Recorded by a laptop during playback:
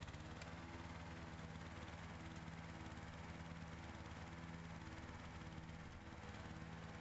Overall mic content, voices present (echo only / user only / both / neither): neither